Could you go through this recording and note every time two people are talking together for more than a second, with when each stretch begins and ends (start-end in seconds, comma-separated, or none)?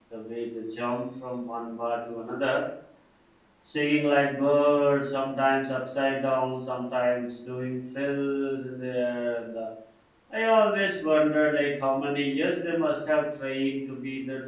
none